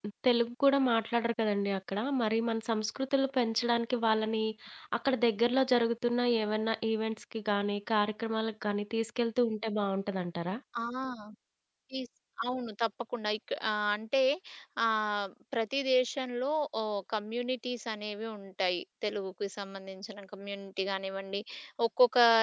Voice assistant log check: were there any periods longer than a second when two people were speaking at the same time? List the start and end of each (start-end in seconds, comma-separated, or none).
none